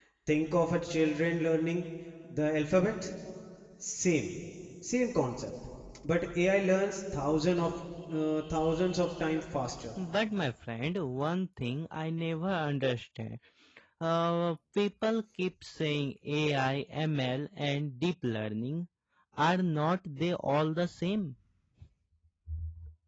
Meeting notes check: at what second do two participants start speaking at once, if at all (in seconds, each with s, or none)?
none